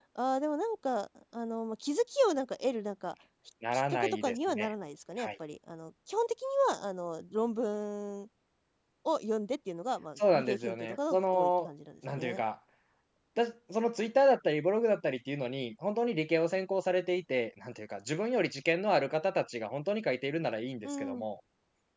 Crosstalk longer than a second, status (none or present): present